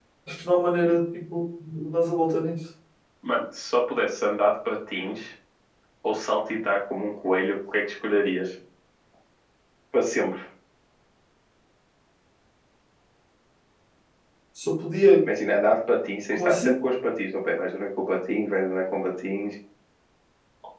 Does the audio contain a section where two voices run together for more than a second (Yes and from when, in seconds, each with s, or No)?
No